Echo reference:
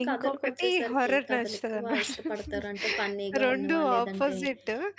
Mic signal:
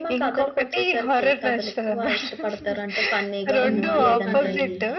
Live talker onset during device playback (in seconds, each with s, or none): 3.6 s